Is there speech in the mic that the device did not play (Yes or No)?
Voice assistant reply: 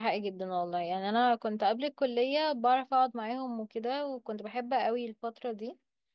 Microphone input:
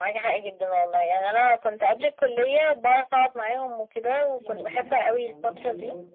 Yes